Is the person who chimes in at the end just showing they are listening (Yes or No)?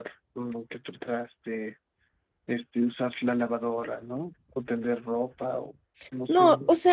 No